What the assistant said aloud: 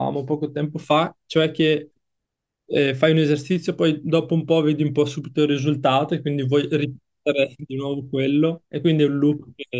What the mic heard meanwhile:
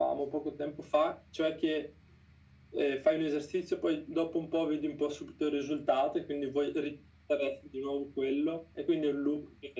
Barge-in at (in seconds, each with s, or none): none